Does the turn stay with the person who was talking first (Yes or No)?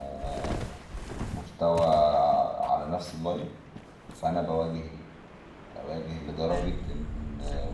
Yes